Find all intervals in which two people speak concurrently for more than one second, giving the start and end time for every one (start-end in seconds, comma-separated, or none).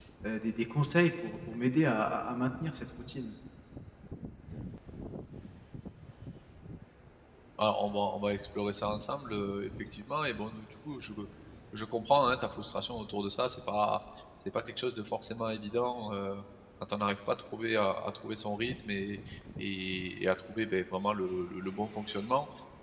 none